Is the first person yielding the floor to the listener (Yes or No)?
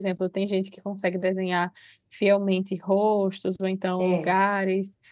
No